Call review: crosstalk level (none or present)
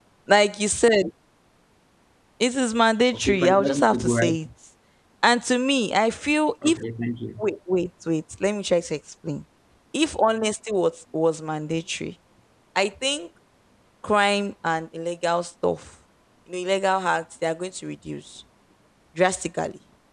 present